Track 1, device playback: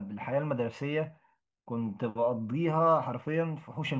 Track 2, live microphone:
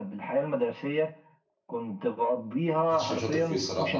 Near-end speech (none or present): present